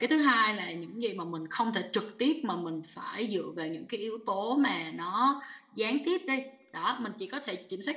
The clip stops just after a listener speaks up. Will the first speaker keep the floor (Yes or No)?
Yes